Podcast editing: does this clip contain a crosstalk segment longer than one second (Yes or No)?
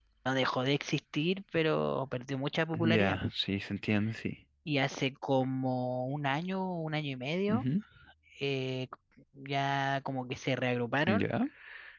No